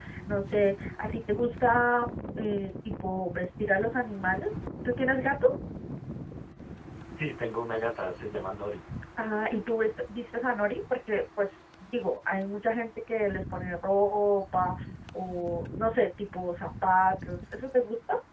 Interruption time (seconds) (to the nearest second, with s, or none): none